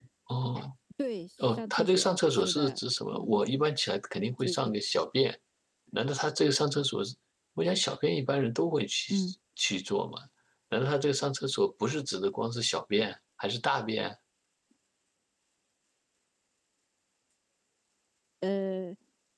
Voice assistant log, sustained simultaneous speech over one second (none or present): present